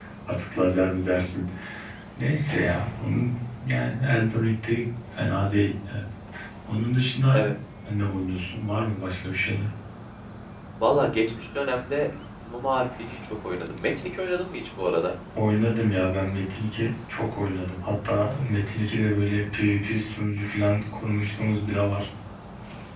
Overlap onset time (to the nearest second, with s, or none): none